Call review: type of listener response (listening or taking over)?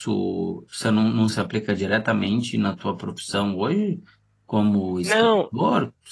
listening